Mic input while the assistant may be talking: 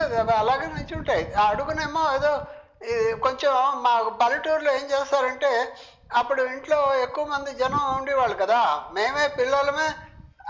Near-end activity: none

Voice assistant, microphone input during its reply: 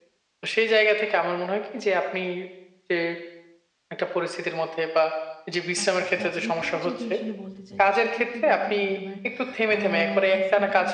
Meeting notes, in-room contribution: present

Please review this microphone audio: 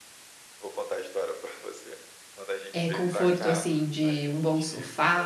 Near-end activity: present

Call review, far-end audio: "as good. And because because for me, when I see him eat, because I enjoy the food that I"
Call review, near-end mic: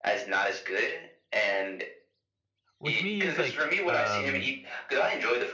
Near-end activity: present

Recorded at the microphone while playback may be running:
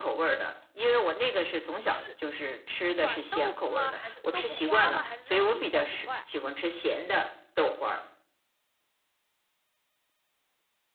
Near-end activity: present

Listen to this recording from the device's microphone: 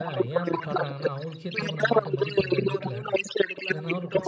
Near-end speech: present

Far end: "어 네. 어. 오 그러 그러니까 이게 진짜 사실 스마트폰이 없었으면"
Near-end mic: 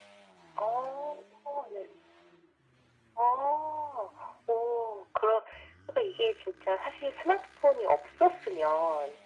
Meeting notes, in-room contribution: none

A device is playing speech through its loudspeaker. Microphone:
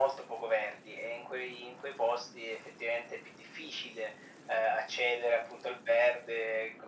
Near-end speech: none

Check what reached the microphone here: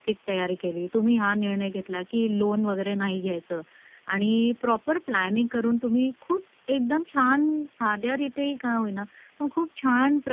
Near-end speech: present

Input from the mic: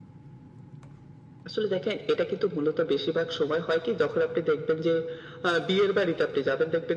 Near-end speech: none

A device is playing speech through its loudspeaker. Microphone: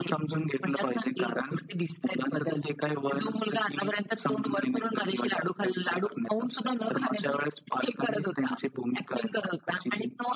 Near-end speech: none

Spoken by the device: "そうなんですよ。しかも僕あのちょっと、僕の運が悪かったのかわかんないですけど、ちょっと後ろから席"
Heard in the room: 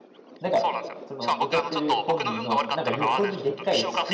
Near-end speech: present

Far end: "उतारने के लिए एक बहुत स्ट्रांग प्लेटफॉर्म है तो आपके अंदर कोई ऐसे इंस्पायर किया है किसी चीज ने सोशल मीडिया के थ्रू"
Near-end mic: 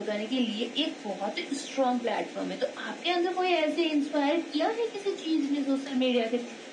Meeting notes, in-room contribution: none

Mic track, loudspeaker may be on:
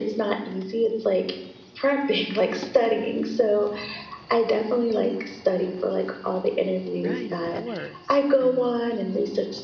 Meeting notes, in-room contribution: present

